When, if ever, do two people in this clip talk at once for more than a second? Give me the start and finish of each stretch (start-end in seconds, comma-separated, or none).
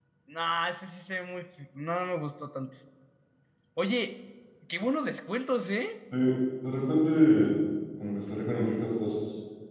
none